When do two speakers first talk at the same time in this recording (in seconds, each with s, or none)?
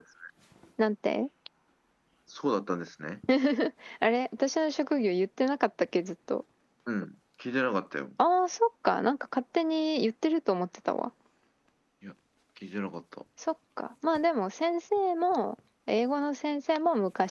none